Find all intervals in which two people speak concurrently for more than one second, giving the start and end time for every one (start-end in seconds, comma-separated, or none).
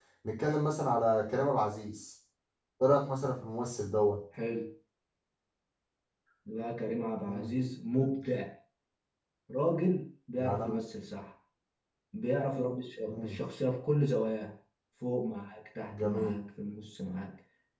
none